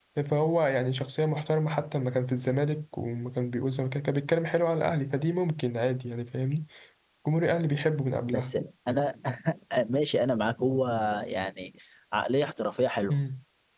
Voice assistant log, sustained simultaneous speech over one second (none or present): none